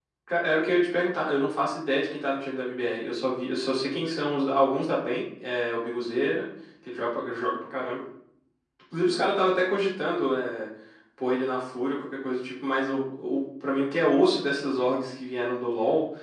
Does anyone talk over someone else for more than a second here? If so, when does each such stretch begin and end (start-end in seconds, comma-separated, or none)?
none